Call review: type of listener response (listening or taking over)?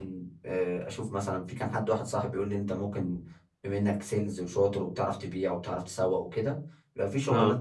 listening